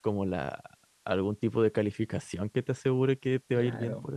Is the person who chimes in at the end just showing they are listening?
No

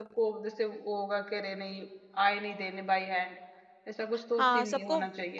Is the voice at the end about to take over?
Yes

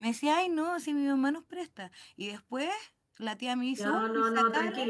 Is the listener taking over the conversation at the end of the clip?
Yes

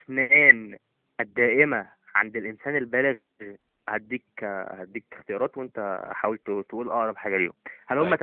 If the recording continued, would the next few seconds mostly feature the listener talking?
No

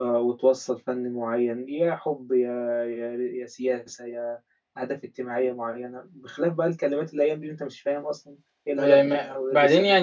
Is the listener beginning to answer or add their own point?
Yes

